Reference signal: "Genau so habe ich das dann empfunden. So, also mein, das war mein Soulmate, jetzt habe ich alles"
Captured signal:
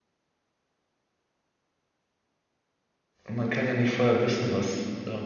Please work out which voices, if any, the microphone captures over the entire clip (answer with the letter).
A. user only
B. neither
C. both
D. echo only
A